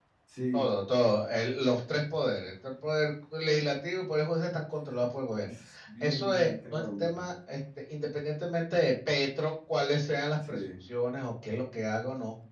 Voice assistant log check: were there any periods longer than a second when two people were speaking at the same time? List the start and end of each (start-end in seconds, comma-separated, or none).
6.0-7.3